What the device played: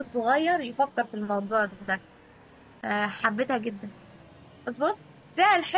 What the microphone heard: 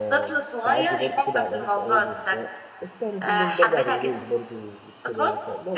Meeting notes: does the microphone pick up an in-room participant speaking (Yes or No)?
Yes